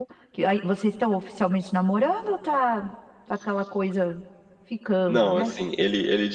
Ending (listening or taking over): taking over